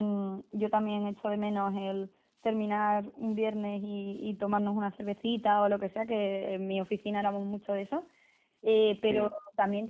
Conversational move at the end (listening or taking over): listening